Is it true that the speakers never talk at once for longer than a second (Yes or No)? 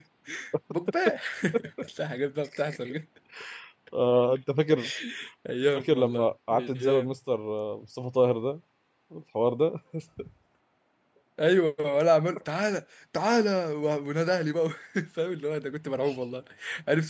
No